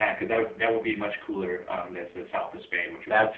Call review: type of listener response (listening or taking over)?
listening